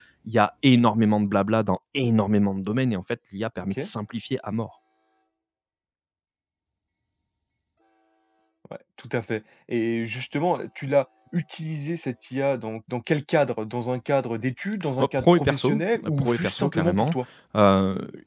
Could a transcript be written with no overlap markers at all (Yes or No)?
No